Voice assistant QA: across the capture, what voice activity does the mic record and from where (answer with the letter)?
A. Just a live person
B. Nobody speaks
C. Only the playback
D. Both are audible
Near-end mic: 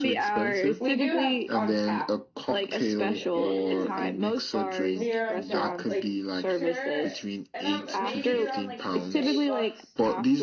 D